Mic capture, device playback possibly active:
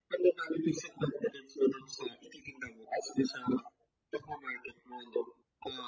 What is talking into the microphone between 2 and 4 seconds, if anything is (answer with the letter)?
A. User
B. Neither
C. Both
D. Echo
D